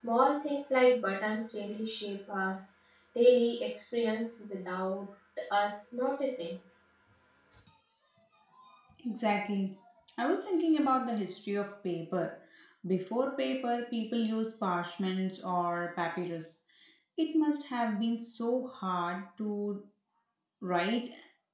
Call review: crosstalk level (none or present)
none